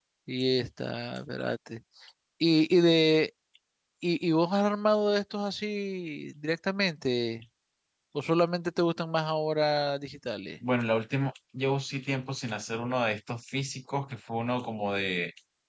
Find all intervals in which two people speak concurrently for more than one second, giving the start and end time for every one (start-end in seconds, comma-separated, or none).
none